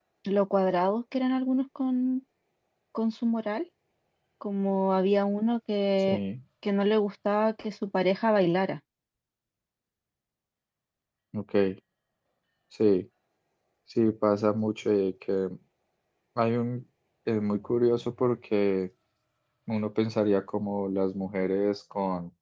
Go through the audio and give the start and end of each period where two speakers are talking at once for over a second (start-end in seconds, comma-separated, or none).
none